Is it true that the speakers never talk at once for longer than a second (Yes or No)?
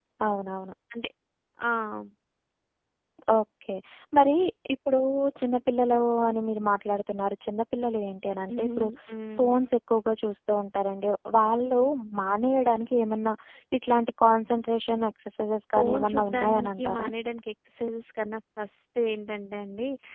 No